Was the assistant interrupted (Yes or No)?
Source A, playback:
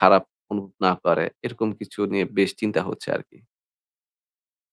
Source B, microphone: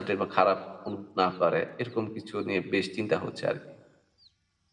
No